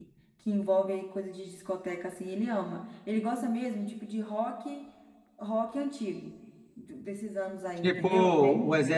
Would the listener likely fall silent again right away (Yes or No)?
No